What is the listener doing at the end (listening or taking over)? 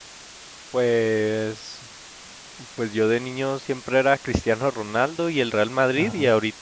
listening